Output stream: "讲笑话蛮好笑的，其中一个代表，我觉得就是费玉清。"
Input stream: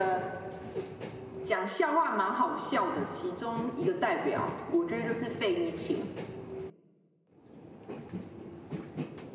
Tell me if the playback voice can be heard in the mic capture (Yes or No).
Yes